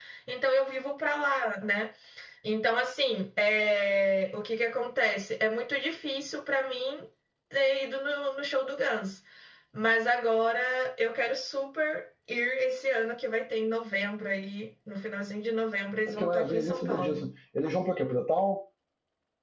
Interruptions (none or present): present